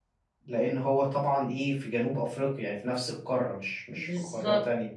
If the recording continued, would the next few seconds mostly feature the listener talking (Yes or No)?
Yes